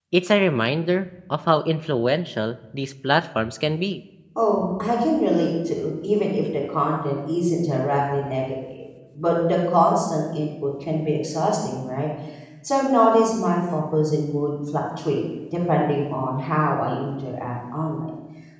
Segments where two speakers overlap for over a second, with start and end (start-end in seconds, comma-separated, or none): none